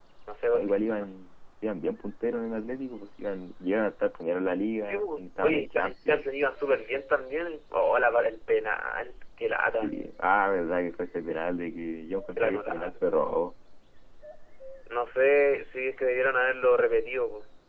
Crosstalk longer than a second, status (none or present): present